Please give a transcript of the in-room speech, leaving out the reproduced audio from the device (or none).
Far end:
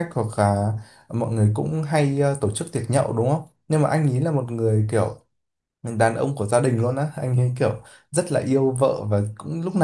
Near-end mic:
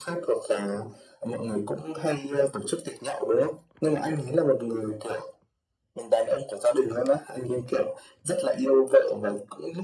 none